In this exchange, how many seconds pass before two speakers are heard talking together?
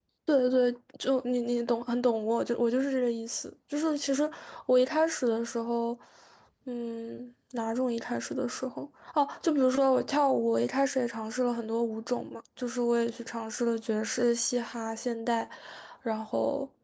none

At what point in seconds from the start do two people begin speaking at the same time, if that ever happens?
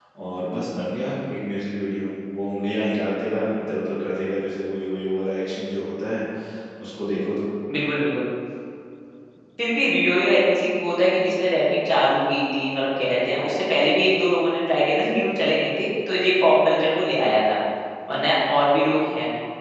none

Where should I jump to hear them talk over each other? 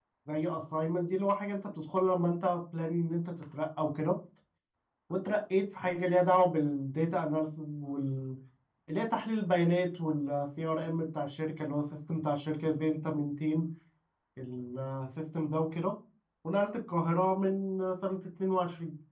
none

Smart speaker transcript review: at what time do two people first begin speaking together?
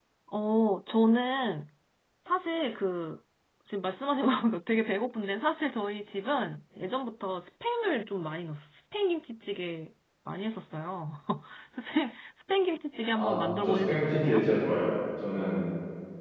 13.1 s

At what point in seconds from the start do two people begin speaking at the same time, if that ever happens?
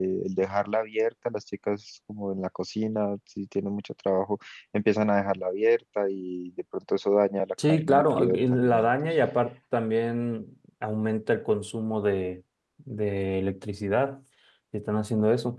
7.6 s

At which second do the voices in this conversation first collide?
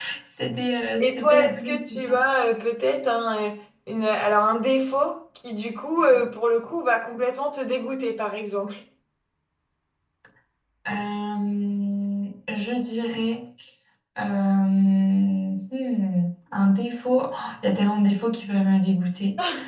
1.0 s

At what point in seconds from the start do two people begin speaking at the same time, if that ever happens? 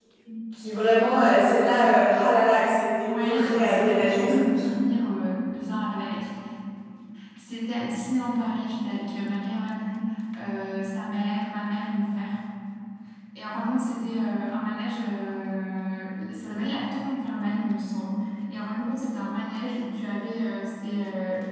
3.0 s

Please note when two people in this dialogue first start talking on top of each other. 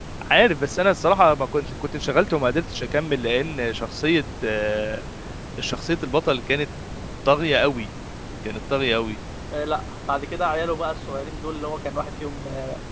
none

